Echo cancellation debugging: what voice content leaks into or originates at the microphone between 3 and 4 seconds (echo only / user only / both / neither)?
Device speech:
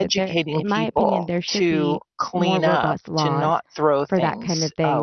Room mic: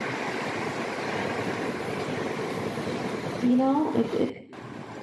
user only